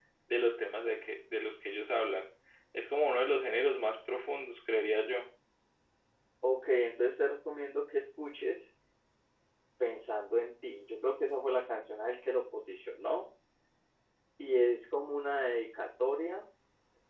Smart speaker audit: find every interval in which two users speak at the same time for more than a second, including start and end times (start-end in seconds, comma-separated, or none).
none